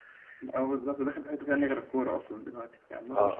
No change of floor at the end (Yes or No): No